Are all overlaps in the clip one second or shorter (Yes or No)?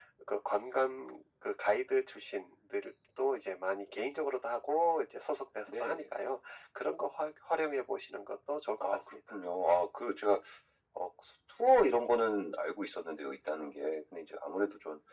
Yes